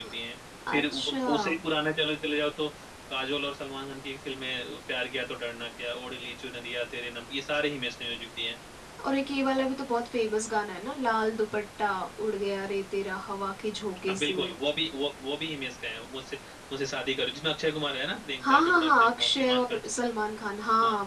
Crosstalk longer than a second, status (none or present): present